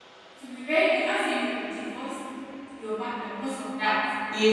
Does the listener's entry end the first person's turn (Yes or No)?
Yes